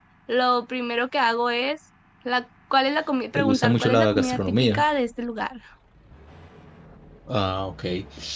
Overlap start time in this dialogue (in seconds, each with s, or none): 3.3 s